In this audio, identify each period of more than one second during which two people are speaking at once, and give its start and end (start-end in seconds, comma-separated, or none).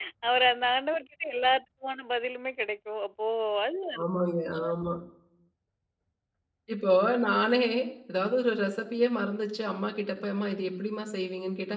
none